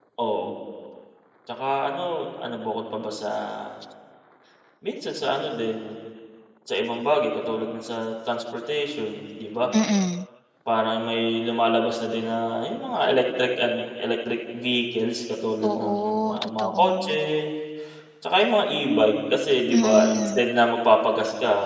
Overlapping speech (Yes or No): Yes